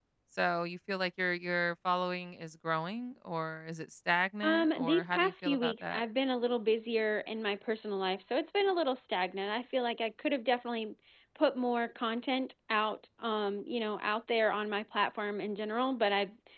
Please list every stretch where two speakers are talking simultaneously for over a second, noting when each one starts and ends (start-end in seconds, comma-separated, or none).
4.4-6.0